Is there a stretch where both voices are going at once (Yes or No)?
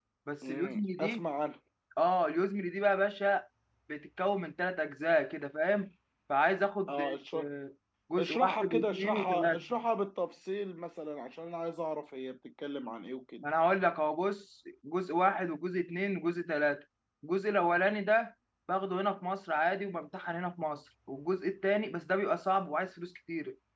Yes